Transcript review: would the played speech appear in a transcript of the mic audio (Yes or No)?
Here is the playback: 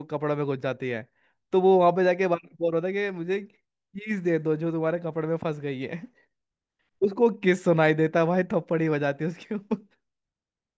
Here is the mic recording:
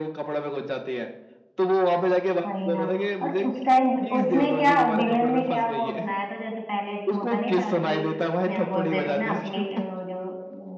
Yes